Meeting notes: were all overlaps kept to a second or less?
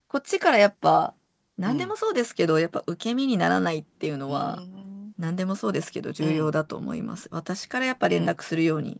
Yes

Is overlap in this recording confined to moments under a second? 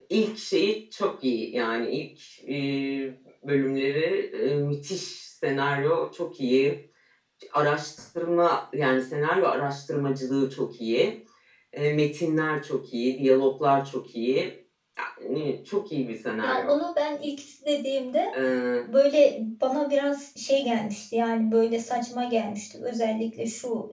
Yes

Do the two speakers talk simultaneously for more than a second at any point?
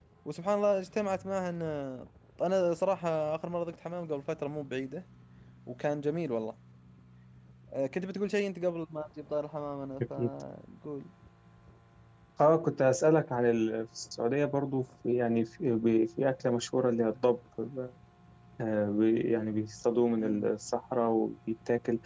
No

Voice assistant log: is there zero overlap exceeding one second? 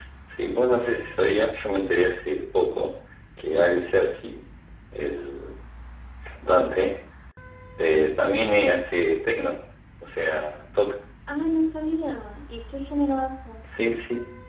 Yes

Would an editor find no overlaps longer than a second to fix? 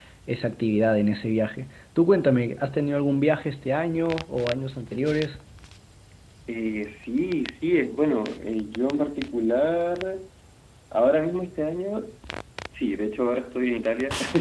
Yes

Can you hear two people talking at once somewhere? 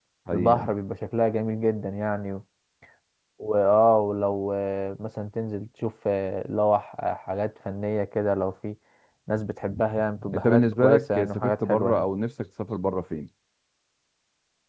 Yes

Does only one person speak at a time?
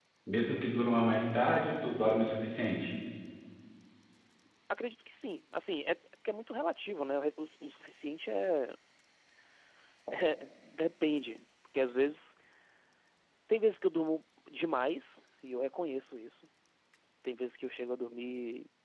Yes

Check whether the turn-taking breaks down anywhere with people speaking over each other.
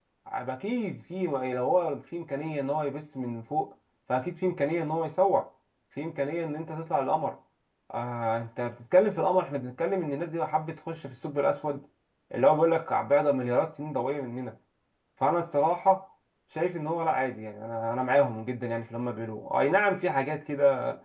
No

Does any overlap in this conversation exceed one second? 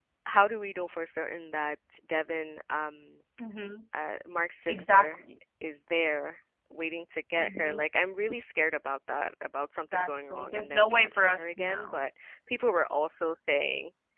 Yes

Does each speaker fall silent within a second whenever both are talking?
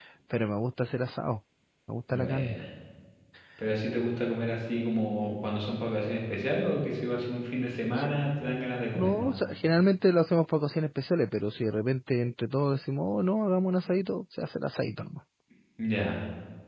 Yes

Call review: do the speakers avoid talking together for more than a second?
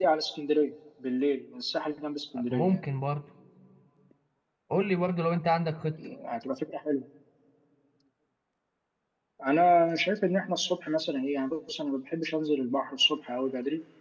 Yes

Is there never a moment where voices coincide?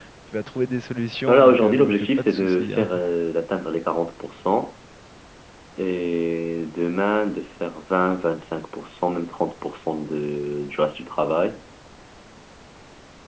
No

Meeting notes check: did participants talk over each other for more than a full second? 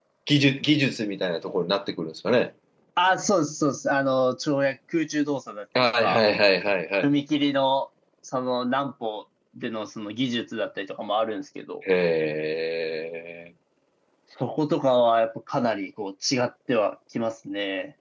No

